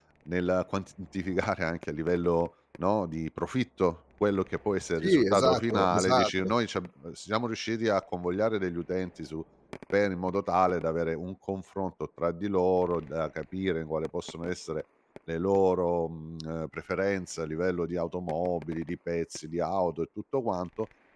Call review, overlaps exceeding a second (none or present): present